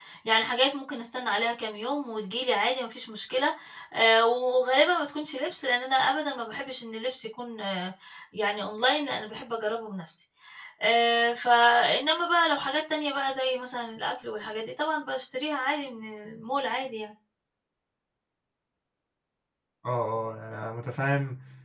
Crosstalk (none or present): none